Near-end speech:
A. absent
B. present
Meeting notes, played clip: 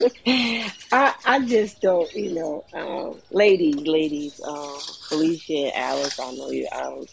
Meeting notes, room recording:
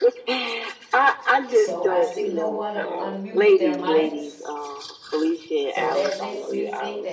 B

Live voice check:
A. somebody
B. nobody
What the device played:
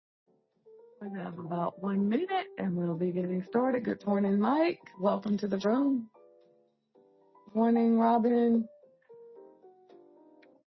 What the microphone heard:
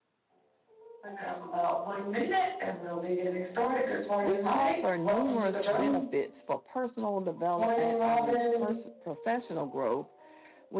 A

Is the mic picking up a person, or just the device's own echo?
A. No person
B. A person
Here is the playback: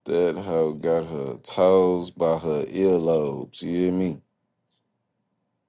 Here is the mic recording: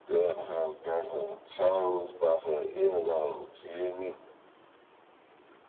A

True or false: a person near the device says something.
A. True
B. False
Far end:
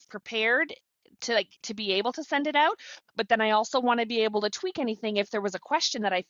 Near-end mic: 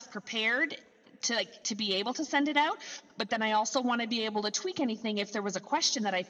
B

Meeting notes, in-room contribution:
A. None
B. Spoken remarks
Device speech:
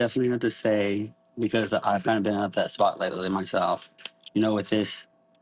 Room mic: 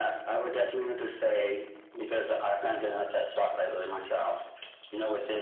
A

